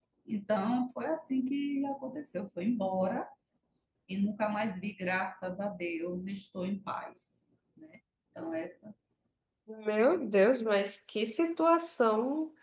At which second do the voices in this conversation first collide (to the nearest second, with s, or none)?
none